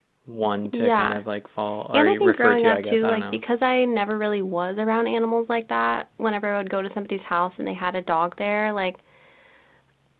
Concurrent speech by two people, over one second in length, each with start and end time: 1.9-3.4

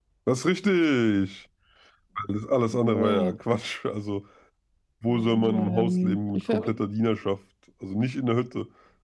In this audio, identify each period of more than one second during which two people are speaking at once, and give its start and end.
5.3-6.7

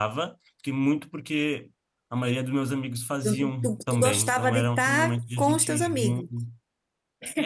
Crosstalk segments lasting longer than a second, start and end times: 3.2-6.3

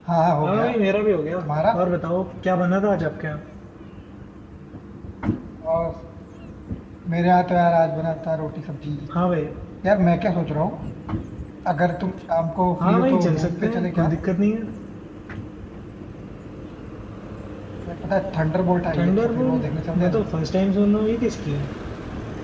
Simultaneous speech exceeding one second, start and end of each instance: 12.8-14.1, 19.0-20.2

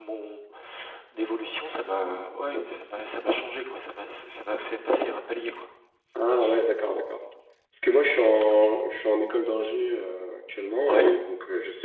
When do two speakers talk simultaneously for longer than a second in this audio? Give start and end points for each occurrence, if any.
none

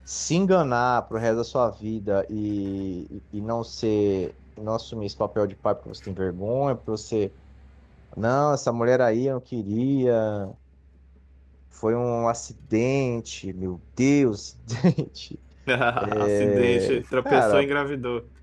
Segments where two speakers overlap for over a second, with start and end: 16.0-17.7

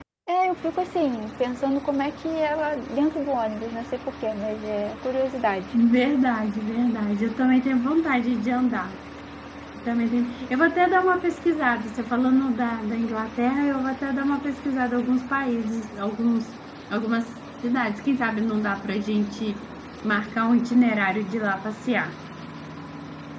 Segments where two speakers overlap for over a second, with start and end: none

